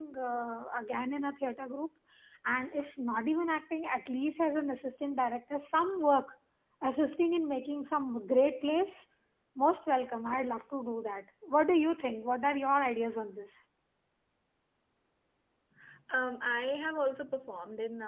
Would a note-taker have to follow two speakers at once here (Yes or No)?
No